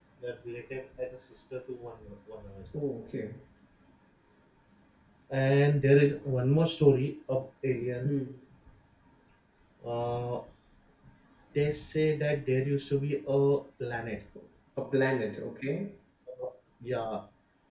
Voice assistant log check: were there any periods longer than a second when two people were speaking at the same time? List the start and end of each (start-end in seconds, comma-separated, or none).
none